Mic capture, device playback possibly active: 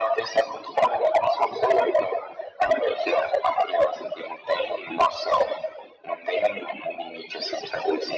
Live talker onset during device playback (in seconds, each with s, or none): none